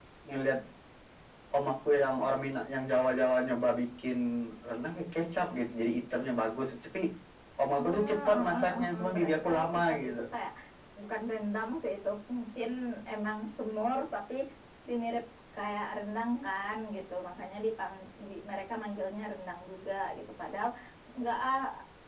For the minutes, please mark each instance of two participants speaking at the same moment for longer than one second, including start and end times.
7.8-10.1

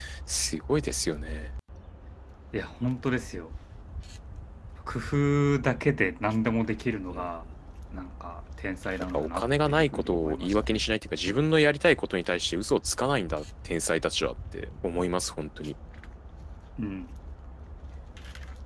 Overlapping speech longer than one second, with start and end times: 9.1-10.8

